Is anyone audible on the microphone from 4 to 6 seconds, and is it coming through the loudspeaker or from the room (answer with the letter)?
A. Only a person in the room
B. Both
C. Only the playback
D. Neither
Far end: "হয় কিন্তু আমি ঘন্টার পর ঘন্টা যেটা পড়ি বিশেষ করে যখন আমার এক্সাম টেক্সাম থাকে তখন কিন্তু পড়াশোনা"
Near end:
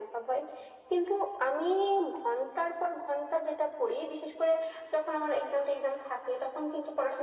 C